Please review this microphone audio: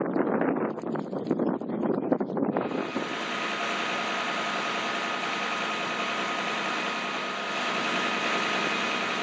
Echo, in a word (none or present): none